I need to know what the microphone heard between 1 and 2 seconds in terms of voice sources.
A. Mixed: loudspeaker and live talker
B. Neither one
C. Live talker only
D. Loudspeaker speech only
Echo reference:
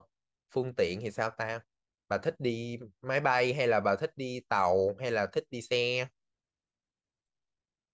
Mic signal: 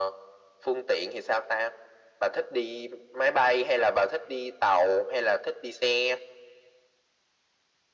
D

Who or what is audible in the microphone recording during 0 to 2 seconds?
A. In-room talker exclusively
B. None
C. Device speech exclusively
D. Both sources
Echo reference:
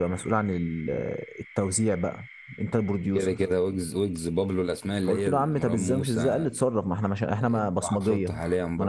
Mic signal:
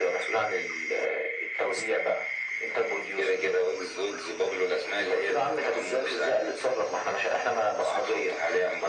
C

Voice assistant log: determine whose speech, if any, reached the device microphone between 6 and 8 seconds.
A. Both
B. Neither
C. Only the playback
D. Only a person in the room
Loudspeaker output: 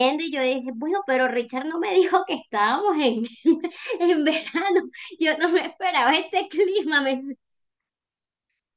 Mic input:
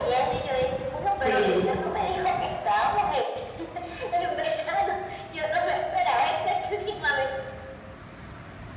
C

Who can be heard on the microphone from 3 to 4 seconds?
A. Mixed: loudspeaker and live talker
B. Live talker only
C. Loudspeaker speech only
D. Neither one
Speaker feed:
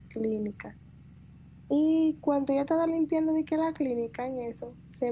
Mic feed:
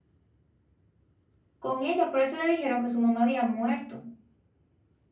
B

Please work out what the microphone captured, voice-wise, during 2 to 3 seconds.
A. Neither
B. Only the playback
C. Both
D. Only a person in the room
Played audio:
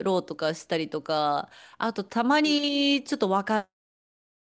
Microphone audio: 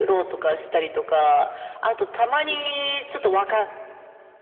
B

